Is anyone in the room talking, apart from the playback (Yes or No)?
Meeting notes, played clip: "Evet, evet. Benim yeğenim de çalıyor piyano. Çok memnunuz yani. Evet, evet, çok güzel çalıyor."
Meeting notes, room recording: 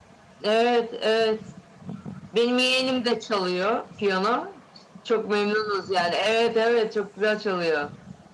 No